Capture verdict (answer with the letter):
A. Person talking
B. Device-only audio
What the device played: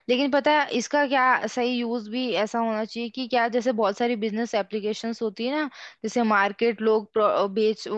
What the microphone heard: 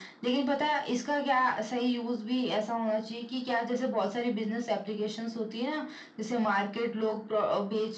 B